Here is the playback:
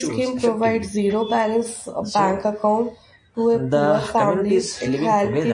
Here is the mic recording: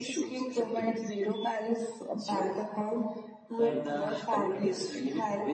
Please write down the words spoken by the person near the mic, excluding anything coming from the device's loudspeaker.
and community

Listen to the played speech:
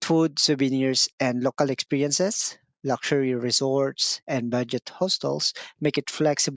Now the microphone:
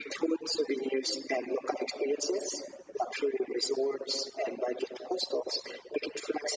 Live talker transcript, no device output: none

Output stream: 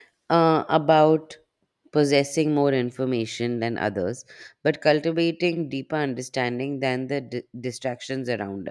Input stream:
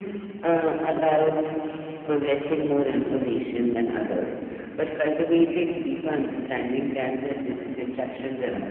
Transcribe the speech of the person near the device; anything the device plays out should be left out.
none

